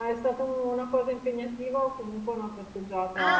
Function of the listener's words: taking over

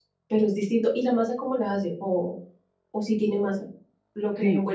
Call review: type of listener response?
taking over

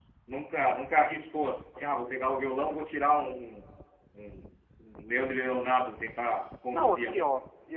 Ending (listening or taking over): taking over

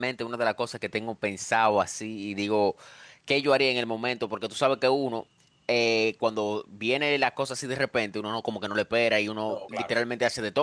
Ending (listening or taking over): listening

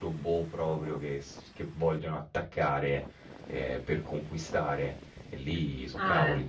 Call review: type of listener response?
taking over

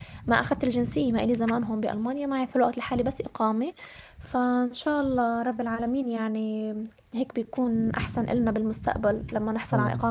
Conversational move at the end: listening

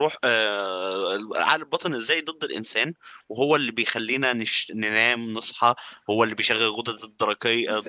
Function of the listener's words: listening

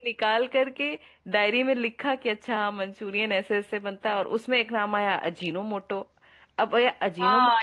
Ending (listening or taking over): taking over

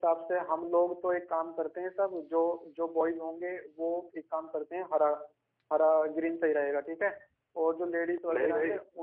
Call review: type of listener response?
listening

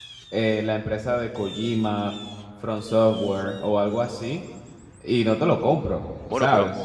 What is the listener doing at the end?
taking over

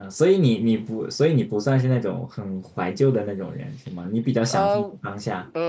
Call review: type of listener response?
taking over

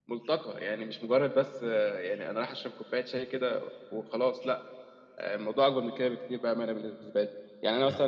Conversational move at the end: listening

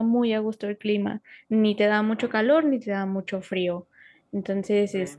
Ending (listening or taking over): taking over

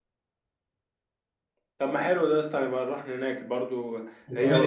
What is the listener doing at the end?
listening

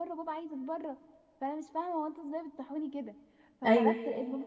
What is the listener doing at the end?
listening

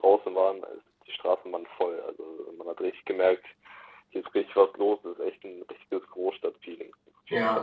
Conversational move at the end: taking over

